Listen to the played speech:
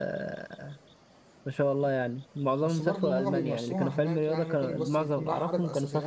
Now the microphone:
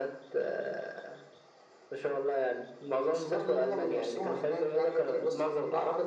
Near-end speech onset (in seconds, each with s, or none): none